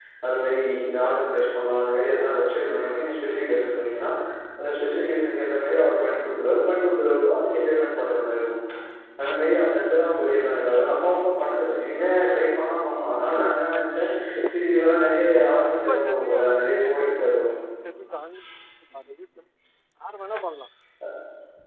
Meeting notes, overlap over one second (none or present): present